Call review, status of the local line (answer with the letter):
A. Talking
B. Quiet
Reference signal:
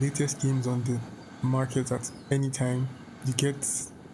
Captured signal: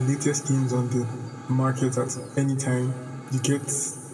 B